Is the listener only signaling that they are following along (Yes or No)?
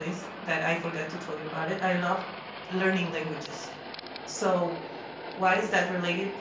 Yes